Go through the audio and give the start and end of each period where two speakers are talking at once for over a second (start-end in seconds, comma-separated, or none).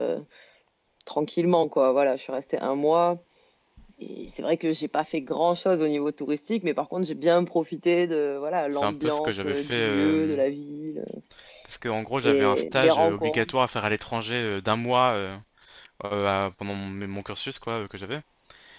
8.8-10.4, 12.2-13.5